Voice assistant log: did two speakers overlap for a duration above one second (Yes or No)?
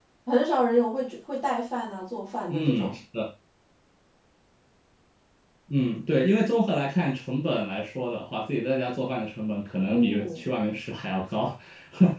No